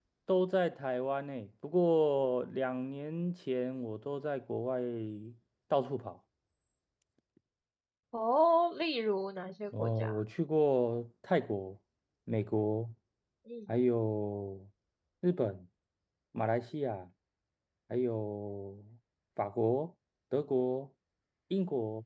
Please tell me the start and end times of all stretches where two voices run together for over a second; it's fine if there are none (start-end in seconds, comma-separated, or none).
none